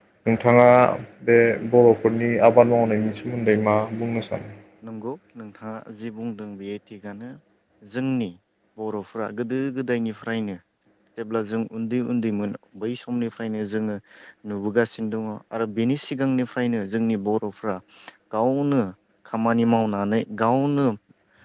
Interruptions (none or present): none